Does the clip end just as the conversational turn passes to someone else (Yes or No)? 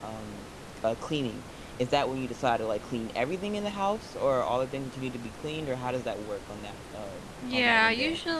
Yes